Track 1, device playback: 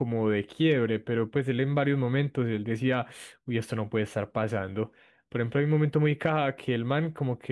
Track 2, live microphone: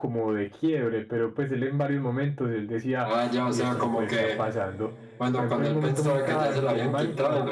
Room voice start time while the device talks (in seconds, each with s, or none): 3.0 s